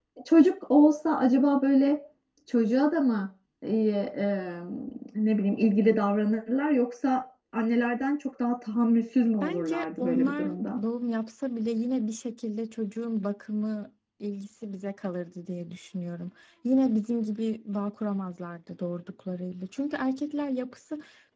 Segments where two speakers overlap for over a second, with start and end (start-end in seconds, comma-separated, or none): 9.4-10.8